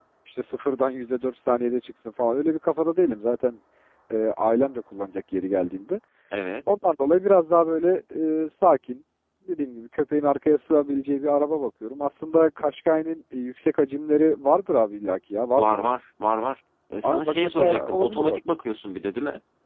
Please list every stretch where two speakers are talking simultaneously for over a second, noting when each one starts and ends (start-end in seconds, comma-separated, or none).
17.0-18.4